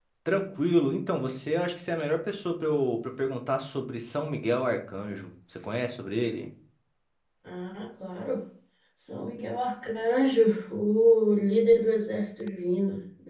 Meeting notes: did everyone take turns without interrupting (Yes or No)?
Yes